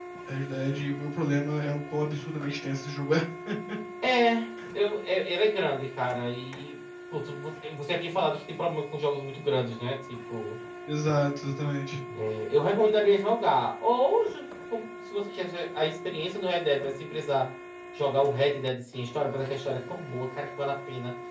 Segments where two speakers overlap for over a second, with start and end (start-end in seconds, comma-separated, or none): none